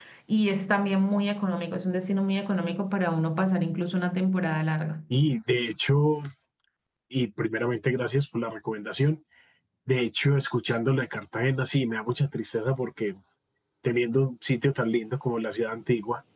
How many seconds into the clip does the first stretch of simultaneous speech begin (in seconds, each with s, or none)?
none